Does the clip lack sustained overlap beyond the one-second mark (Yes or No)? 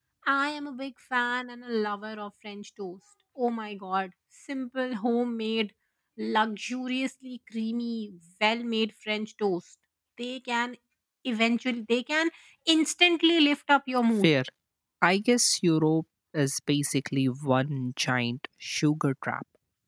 Yes